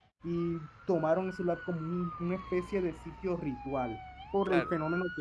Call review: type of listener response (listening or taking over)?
listening